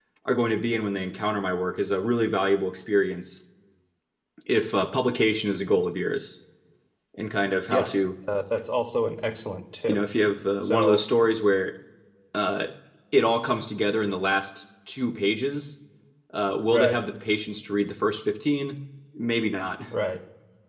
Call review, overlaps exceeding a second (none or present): none